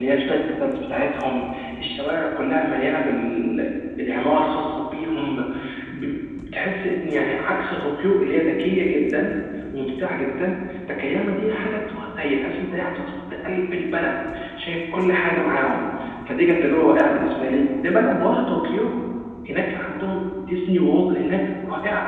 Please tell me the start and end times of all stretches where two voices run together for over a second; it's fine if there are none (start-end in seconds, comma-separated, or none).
none